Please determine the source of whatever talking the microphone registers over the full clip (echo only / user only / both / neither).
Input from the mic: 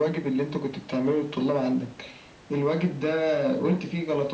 echo only